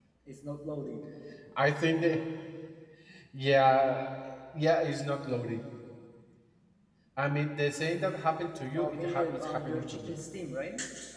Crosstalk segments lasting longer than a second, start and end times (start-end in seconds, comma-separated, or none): 8.7-10.2